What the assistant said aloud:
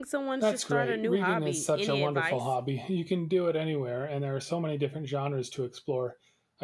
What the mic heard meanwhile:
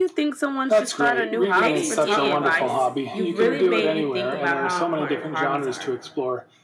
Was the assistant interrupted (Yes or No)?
Yes